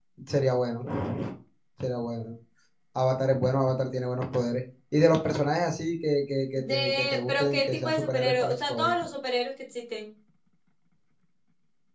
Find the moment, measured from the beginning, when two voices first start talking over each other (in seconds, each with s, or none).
6.6 s